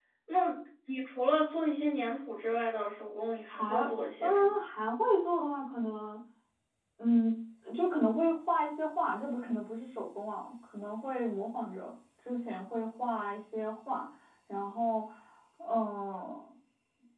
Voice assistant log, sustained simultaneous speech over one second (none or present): none